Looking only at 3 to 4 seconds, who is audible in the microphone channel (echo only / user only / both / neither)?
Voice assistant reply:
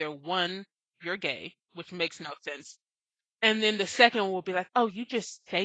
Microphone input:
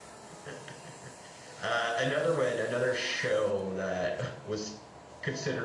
user only